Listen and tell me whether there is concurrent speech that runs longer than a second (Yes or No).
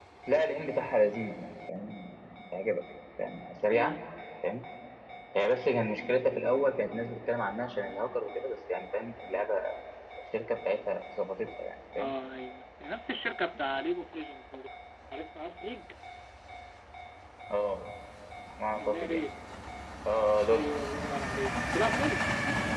No